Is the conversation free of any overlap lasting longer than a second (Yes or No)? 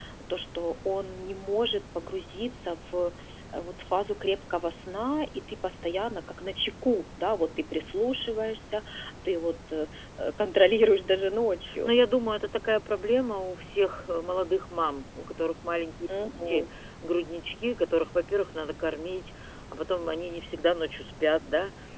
Yes